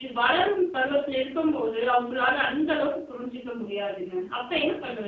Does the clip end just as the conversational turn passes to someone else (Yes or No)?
Yes